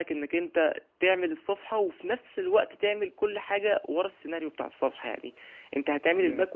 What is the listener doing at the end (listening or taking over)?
listening